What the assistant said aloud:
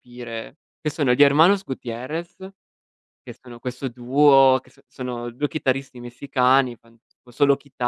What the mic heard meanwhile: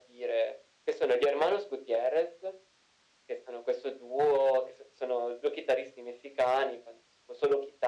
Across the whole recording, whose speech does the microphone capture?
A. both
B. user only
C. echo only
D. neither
C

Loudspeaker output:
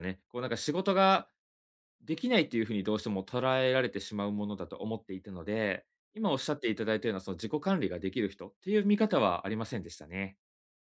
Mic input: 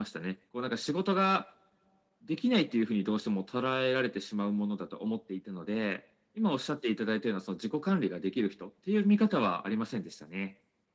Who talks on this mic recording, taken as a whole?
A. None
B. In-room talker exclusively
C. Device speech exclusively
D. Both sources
C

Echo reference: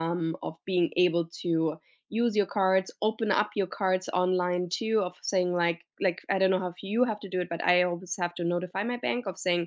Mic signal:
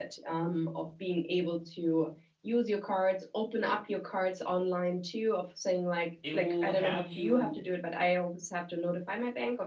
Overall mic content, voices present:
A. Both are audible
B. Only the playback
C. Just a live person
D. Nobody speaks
A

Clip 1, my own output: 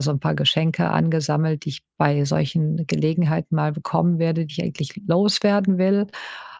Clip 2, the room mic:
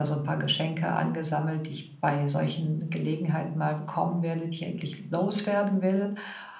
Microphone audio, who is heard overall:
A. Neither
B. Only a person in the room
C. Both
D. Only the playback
D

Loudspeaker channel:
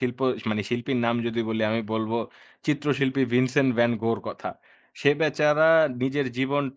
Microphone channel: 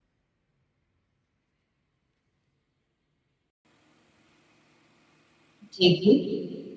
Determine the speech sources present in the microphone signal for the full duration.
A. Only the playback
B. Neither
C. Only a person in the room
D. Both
C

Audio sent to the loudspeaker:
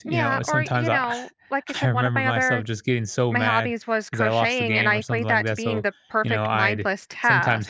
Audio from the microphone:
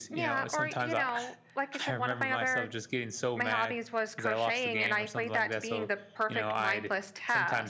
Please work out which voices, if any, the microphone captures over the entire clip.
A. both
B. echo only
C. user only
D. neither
B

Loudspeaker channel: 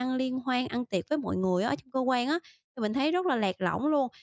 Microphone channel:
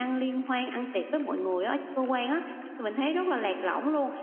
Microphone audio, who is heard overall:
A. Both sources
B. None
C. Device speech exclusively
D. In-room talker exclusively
C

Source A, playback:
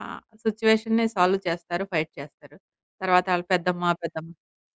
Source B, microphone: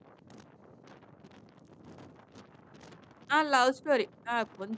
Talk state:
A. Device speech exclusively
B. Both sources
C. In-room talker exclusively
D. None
C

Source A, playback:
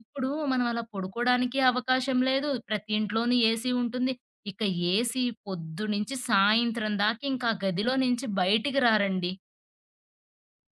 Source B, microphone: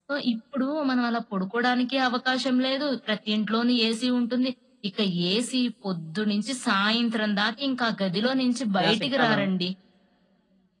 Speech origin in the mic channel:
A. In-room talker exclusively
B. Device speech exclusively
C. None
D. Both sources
D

